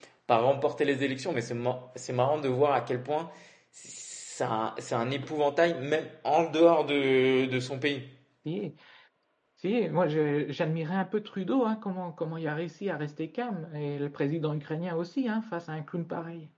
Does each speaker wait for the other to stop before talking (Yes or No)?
Yes